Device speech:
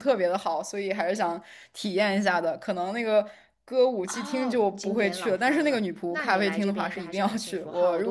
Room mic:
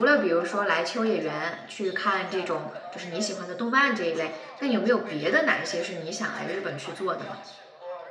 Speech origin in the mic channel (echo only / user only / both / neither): both